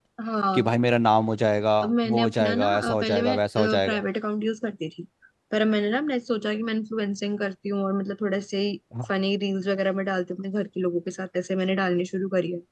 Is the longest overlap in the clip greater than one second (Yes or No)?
Yes